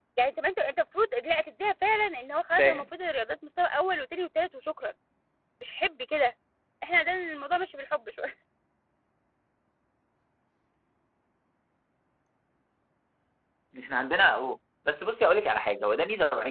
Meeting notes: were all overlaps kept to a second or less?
Yes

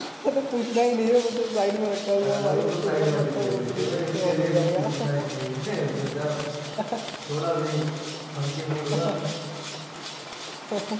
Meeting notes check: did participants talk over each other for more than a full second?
Yes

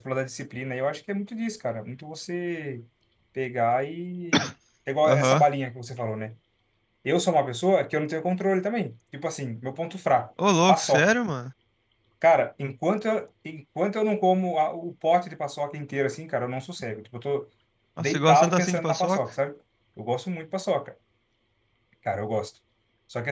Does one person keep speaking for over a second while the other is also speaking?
Yes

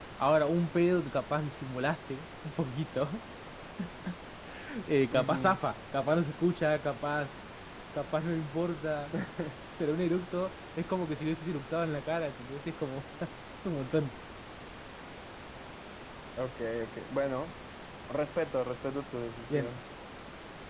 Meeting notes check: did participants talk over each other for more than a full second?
No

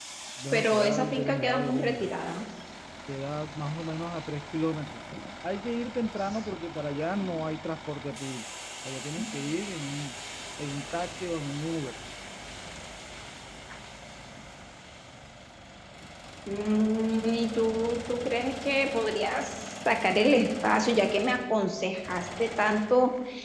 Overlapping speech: Yes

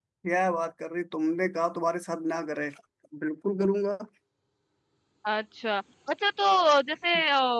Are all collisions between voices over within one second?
Yes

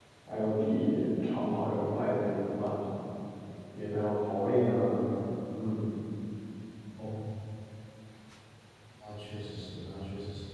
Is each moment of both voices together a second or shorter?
Yes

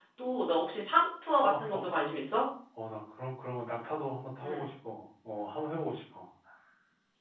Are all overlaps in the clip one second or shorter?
Yes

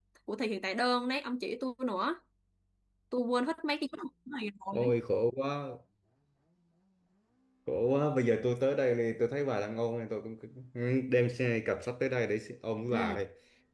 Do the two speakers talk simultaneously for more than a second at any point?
No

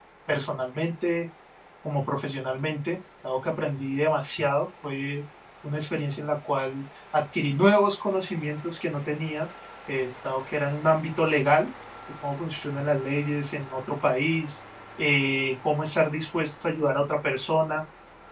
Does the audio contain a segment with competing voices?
No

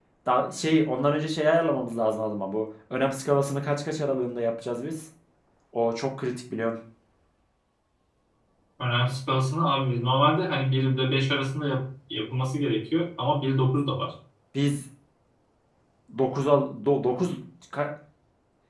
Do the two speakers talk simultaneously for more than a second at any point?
No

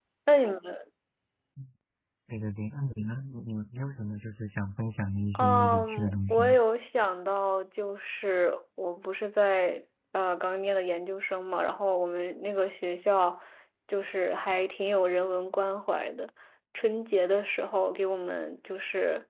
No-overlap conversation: No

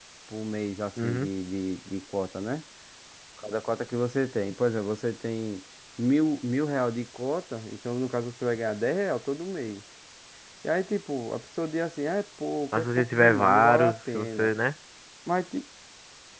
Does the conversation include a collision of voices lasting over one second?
Yes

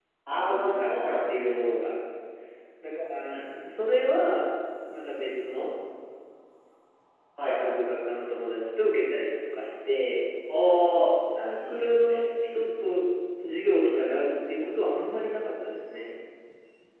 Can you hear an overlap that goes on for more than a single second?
Yes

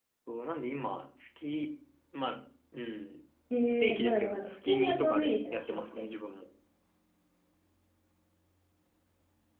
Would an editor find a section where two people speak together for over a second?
Yes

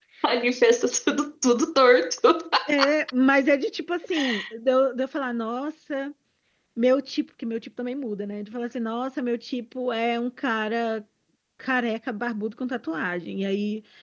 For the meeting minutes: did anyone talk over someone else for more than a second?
No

